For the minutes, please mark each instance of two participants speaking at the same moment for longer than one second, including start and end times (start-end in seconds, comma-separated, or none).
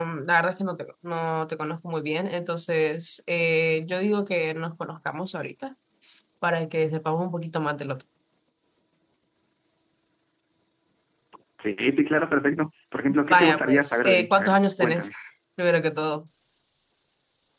13.3-15.1